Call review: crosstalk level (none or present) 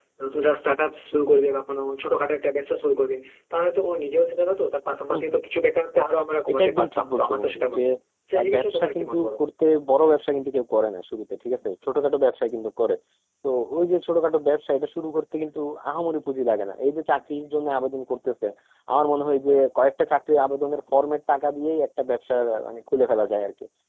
present